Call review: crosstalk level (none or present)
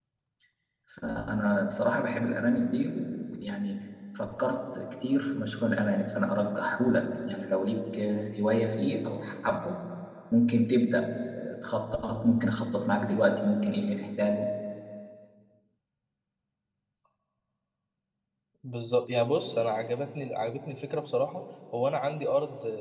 none